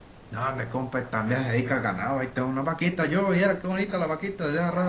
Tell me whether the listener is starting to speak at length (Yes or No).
Yes